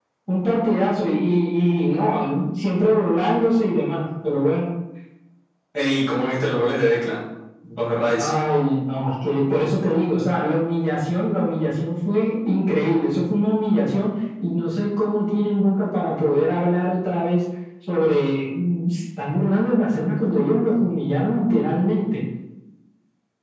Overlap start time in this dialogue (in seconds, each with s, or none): none